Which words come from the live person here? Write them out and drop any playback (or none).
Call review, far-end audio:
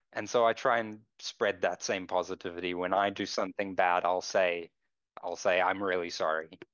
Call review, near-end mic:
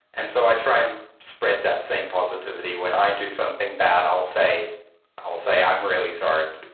none